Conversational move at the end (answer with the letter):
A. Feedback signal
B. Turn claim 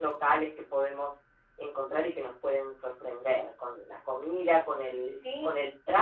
A